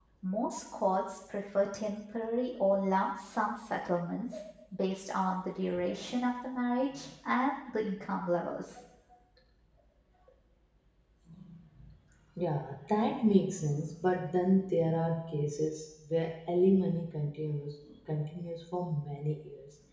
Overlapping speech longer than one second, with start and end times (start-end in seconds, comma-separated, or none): none